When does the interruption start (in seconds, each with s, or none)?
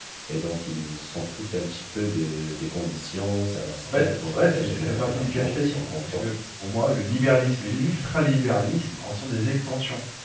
3.9 s